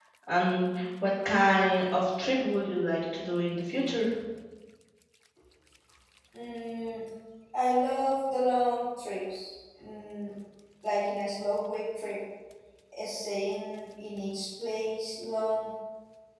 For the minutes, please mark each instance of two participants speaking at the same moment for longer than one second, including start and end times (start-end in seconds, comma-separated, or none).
none